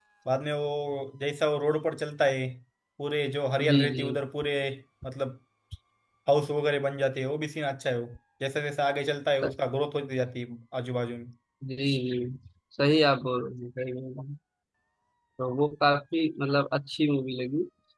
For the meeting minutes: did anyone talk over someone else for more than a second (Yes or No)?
No